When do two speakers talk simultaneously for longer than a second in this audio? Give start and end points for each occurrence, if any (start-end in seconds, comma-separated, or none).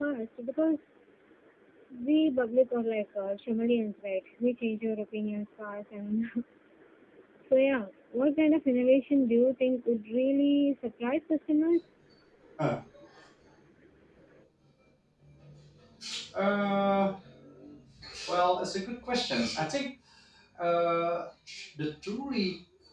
none